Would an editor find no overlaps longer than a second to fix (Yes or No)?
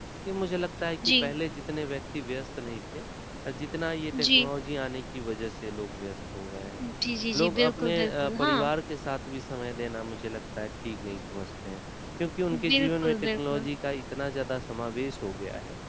No